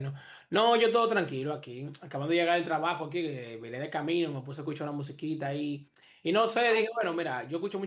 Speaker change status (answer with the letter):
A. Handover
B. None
B